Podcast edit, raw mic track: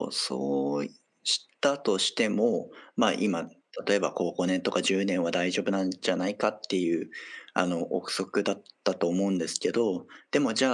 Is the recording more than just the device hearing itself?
Yes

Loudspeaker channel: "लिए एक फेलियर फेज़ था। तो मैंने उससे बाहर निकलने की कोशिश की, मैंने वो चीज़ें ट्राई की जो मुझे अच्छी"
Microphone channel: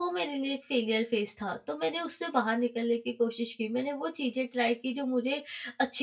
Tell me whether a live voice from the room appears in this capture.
No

